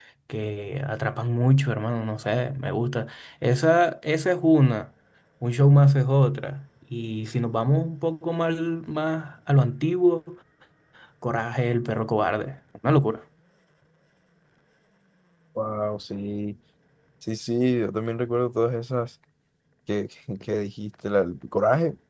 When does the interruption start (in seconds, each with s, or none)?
none